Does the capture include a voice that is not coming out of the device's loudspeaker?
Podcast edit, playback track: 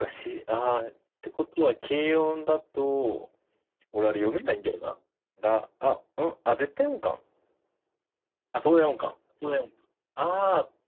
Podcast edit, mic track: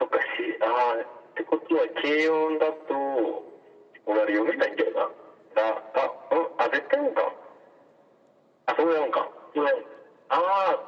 No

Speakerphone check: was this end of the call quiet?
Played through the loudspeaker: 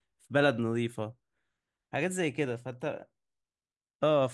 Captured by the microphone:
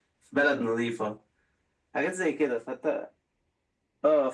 Yes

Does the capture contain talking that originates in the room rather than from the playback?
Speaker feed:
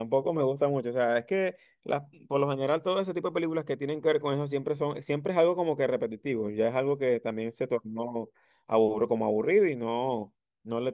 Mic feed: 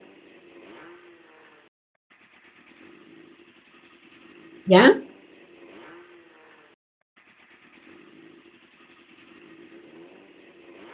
Yes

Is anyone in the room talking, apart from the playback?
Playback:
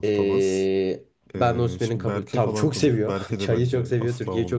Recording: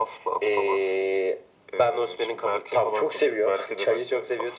No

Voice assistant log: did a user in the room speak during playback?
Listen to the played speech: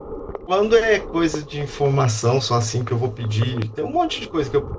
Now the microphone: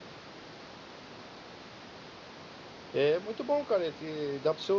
Yes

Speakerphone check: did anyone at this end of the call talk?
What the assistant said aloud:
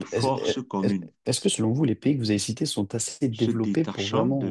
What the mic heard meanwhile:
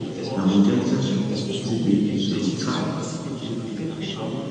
Yes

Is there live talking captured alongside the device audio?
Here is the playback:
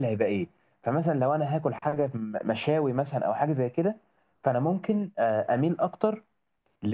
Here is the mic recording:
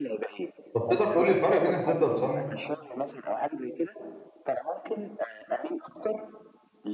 Yes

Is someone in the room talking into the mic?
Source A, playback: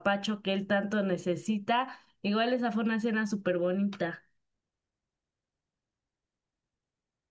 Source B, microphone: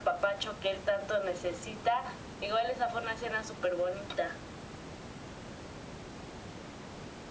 No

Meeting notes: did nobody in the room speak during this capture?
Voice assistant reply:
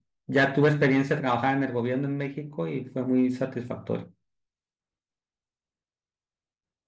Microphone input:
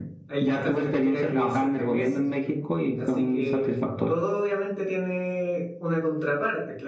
No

